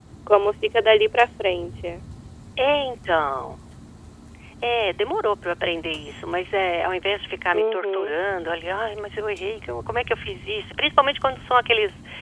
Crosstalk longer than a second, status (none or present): none